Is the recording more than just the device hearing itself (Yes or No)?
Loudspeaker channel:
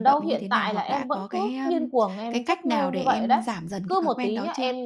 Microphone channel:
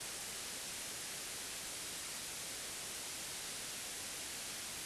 No